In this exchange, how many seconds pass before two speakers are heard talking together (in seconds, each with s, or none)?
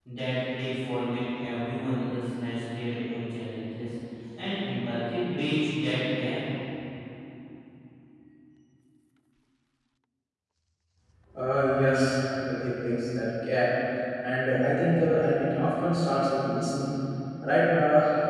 none